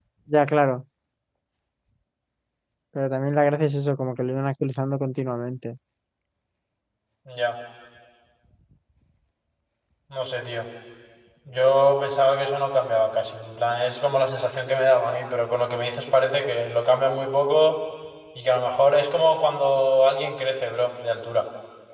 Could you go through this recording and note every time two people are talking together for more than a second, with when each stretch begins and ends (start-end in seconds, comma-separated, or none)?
none